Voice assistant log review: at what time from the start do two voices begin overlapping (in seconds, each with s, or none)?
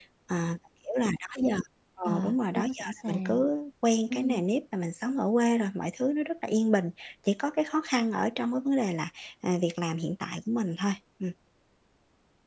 2.0 s